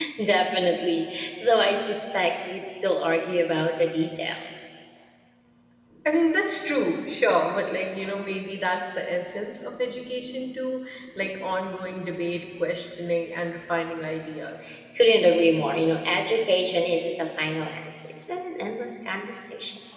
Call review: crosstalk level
none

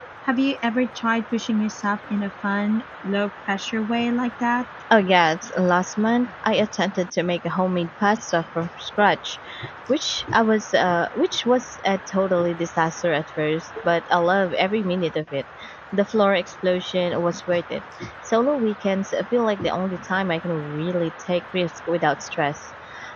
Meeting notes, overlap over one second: none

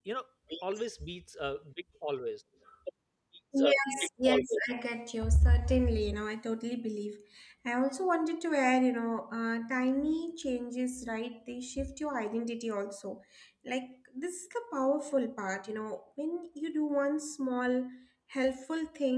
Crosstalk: none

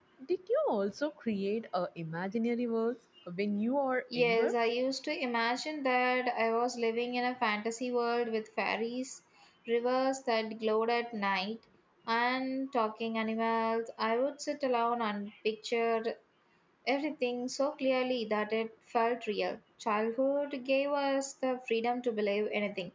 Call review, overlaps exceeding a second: none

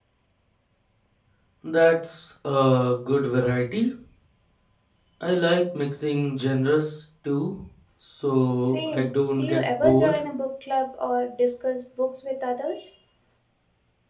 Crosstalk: present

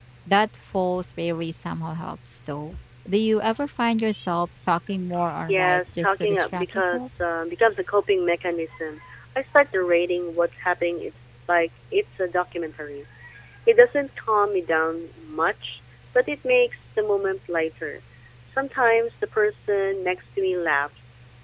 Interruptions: present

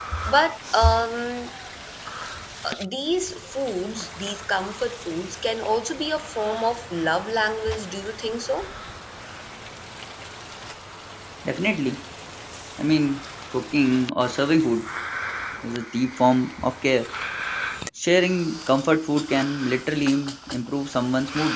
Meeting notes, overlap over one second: none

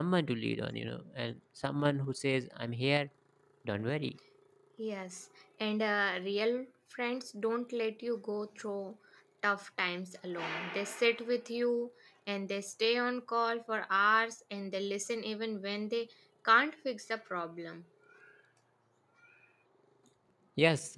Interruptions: none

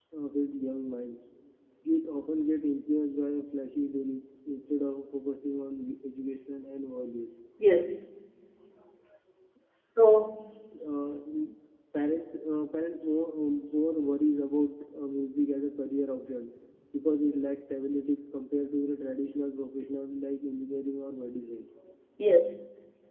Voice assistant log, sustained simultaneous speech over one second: none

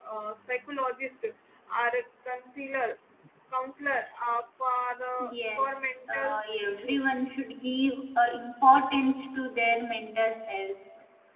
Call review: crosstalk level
present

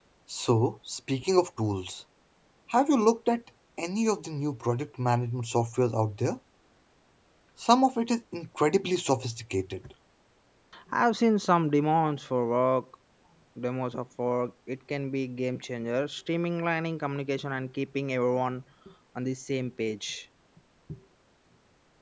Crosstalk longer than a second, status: none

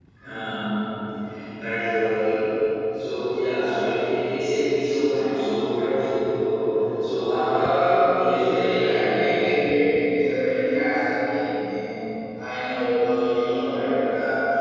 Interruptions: present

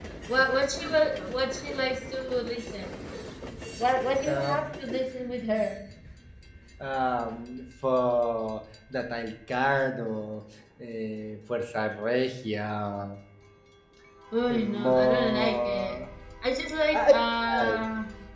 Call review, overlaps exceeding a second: present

